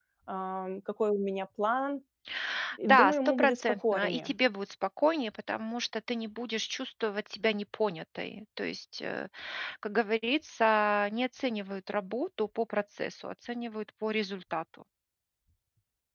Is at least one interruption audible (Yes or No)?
Yes